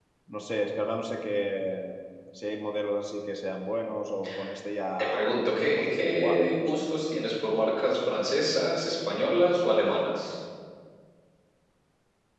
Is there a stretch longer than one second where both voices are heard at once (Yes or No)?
Yes